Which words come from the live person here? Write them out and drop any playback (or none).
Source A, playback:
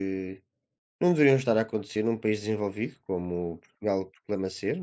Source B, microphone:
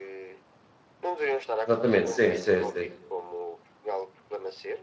Exatamente, sim, sim, sim,